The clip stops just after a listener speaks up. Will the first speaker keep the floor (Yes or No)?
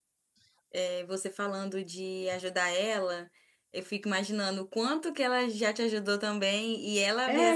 Yes